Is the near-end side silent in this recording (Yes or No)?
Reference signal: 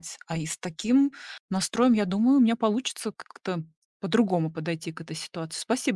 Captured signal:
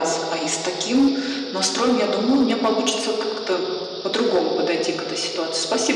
Yes